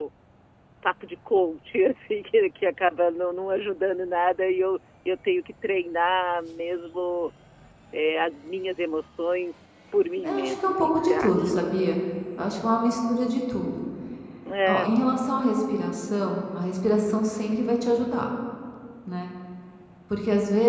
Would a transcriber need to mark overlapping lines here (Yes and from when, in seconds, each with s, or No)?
Yes, from 10.2 s